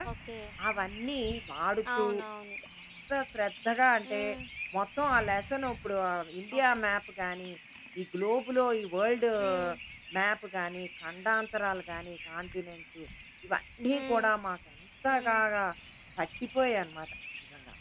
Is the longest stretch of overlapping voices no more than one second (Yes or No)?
Yes